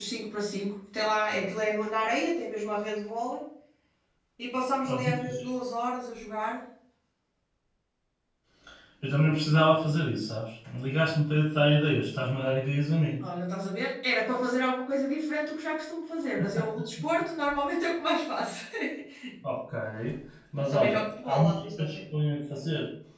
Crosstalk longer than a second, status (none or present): present